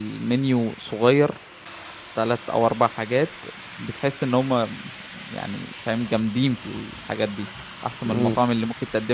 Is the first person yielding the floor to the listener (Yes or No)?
No